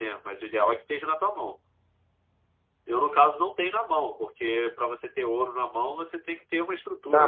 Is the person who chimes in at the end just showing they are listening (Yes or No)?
No